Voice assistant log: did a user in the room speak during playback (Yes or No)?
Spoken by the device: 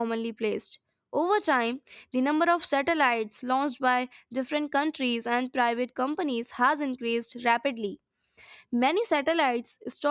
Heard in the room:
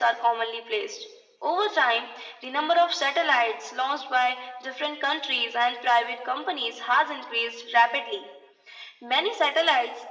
No